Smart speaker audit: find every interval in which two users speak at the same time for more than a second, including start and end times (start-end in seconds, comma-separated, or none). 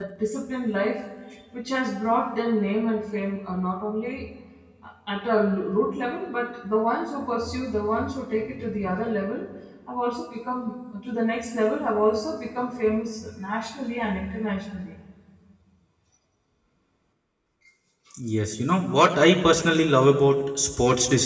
none